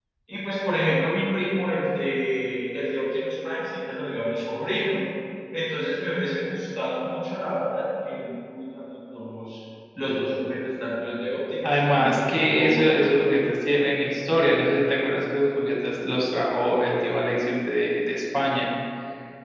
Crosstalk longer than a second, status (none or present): present